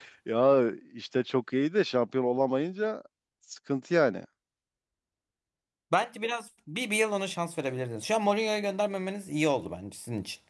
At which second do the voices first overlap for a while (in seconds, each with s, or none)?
none